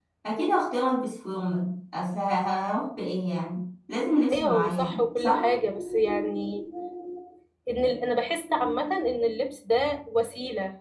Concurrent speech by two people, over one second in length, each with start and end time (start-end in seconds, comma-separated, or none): 4.3-5.5